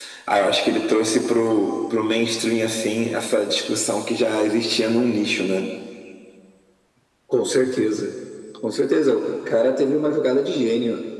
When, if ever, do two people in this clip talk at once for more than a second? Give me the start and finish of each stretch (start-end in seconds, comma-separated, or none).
none